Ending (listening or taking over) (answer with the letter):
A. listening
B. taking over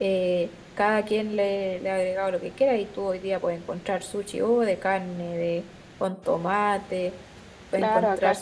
B